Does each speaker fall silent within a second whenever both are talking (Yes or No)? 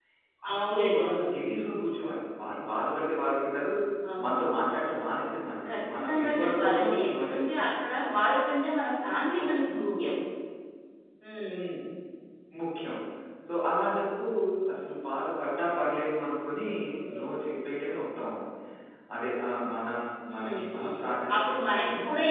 No